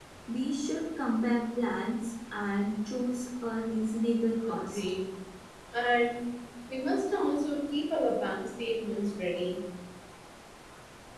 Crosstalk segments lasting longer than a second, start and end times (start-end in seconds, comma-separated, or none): none